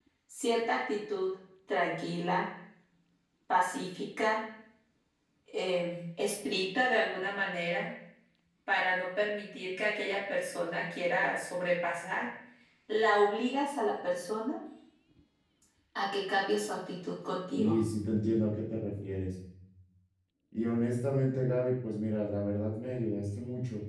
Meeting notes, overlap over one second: none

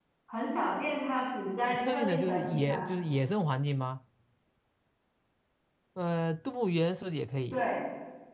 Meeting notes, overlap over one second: present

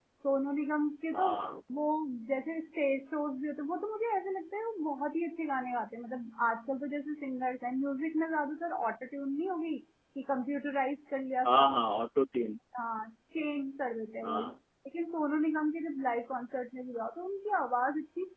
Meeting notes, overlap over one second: none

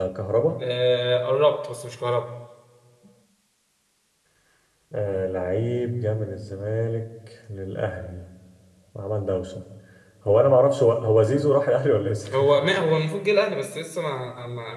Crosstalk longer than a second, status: none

